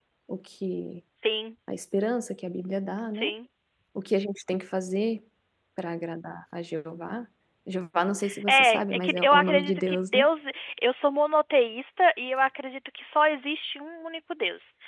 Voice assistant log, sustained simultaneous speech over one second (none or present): present